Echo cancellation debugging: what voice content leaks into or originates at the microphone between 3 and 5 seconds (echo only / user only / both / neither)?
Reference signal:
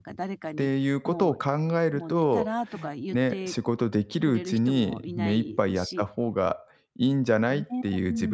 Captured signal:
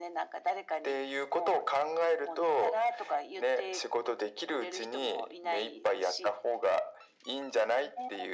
echo only